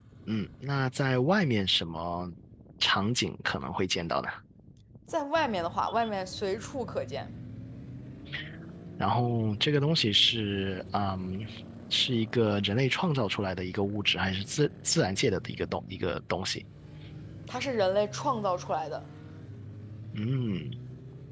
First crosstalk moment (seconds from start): none

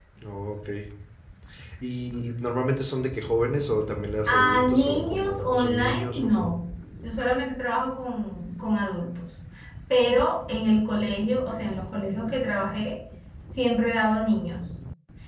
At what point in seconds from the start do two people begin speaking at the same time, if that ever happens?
4.3 s

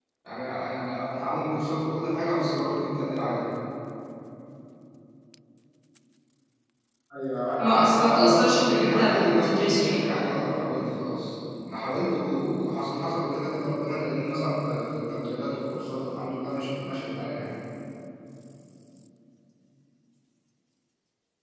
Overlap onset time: 7.6 s

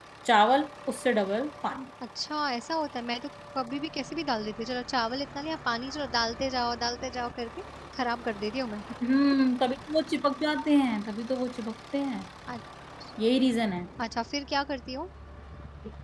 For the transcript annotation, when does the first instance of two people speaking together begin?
none

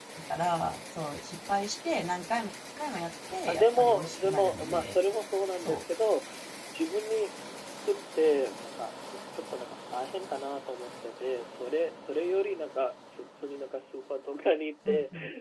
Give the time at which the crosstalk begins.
3.5 s

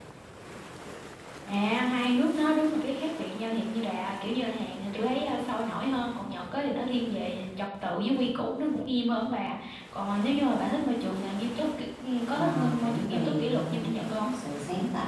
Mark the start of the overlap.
12.4 s

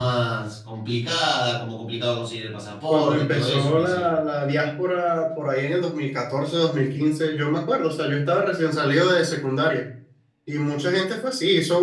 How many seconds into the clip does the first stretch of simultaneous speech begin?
2.9 s

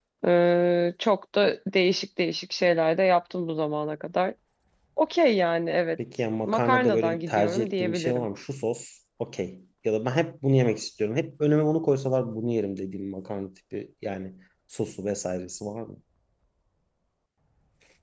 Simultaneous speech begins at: 6.5 s

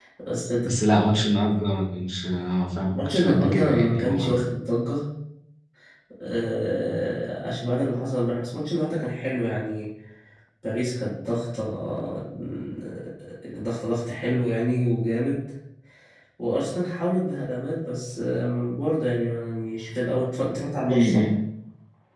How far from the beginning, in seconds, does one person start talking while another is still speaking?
2.9 s

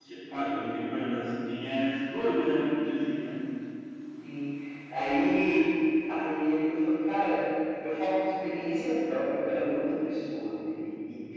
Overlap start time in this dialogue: none

